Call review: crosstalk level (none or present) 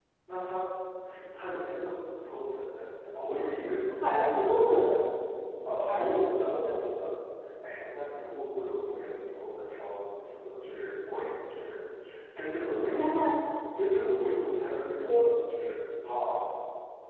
present